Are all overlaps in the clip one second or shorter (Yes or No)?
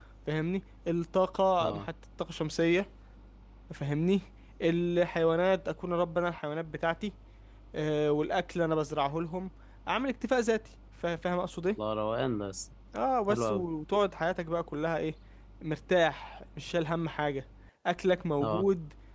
Yes